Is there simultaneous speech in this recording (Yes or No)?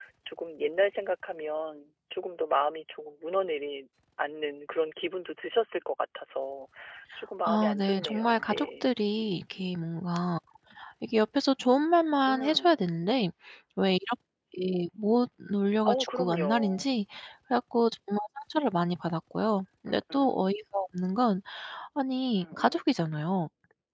Yes